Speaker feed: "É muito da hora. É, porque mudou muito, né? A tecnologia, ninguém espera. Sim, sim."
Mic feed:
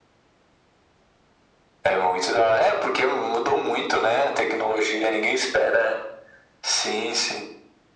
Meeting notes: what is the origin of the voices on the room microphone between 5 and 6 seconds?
echo only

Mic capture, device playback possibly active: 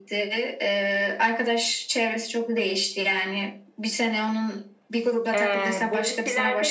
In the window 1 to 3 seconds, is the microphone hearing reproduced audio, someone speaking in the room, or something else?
echo only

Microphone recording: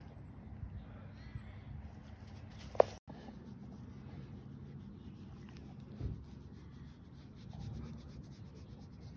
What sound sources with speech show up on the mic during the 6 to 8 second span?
neither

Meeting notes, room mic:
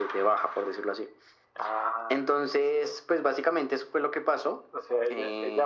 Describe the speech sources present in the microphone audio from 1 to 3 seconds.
echo only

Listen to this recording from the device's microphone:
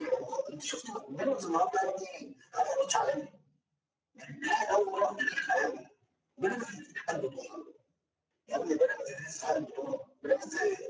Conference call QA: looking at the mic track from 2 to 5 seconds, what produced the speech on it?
echo only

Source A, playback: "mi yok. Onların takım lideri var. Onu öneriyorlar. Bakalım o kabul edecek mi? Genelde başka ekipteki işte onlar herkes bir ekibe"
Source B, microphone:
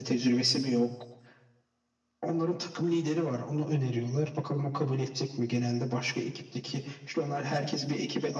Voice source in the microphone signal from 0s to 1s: echo only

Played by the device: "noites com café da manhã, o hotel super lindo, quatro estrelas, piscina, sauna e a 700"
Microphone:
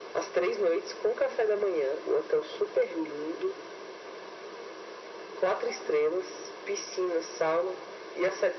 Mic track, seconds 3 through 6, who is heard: echo only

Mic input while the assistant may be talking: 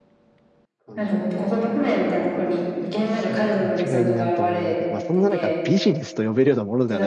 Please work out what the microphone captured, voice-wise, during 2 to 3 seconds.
echo only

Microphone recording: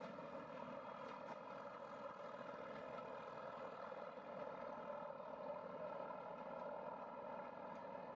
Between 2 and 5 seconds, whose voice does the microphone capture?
neither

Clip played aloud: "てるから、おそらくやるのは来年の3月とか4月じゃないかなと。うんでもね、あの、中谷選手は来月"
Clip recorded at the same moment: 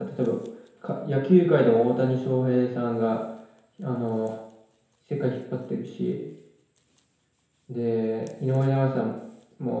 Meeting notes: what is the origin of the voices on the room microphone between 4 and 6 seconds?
user only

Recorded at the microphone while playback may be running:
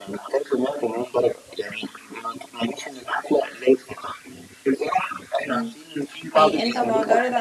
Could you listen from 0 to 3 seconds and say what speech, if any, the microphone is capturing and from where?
echo only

